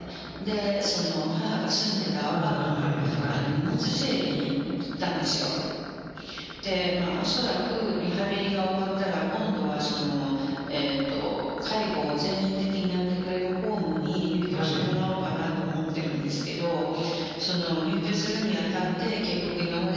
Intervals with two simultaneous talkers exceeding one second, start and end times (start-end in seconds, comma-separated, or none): 2.2-3.5